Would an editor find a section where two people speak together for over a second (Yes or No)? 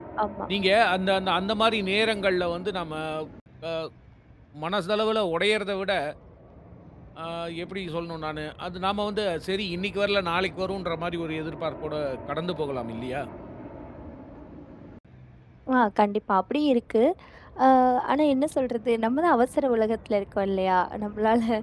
No